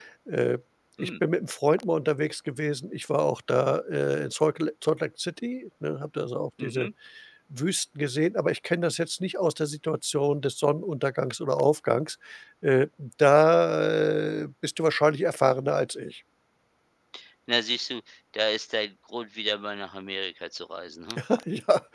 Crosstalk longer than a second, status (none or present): none